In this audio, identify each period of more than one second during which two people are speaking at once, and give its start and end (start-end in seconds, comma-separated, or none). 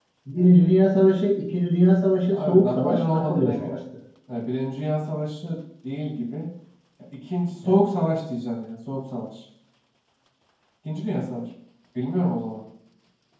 2.3-3.8